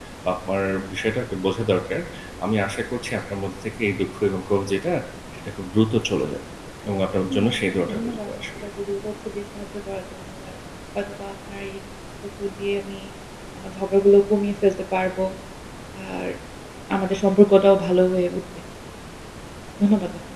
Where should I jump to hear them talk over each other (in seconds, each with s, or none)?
7.3 s